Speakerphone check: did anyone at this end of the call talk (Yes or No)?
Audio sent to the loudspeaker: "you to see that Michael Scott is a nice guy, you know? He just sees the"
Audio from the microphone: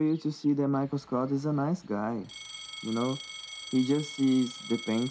No